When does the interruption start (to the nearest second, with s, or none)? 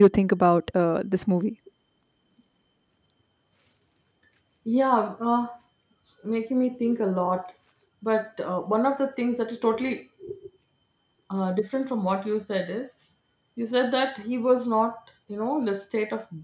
none